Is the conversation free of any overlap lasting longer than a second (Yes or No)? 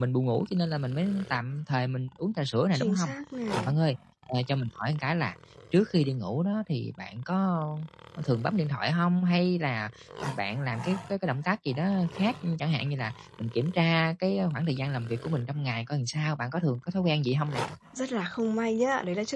Yes